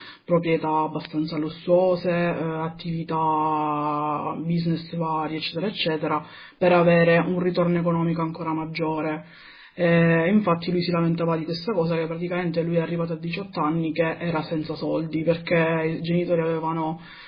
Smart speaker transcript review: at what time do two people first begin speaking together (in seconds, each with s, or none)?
none